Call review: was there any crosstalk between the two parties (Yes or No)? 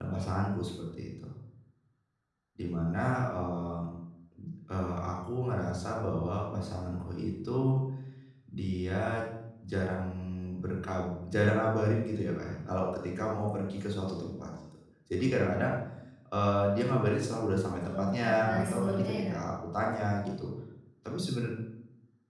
Yes